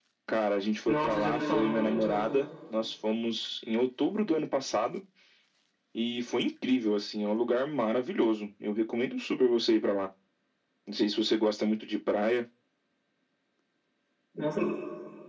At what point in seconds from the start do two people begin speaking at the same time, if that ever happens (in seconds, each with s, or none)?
0.9 s